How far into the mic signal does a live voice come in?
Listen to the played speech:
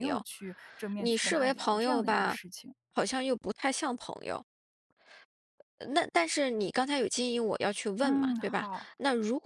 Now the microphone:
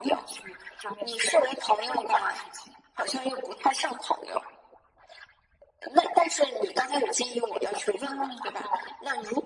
none

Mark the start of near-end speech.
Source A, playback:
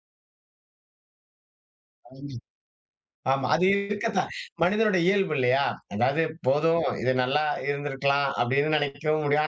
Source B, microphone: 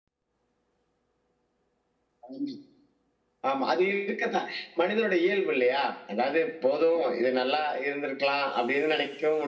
none

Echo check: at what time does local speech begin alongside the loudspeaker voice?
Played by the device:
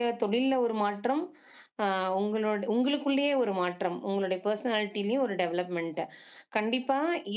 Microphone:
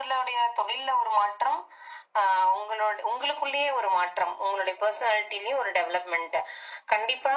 none

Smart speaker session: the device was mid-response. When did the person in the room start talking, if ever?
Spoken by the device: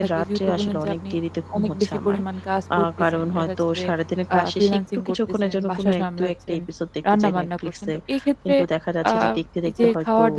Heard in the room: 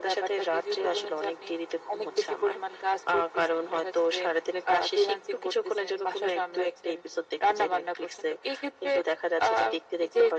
none

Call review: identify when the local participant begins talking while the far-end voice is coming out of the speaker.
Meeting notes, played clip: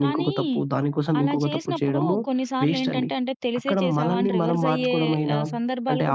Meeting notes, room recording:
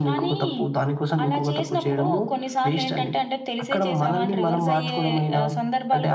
none

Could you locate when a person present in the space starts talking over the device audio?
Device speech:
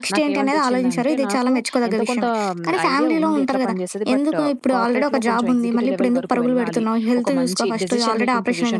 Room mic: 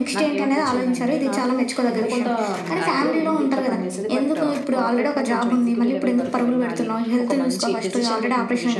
none

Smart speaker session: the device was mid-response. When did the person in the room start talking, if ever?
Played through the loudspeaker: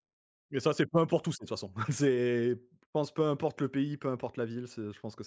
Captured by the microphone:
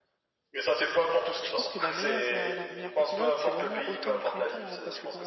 1 s

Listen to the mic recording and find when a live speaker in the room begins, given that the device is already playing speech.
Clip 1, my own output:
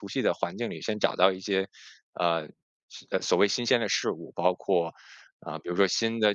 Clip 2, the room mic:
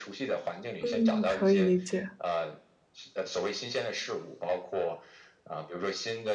1 s

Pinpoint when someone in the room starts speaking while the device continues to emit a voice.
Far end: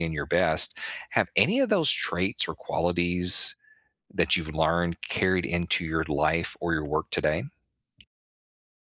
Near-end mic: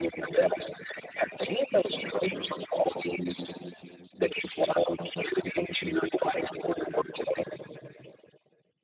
none

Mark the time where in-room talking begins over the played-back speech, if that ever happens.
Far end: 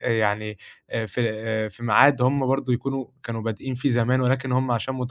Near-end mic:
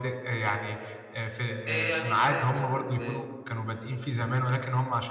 2 s

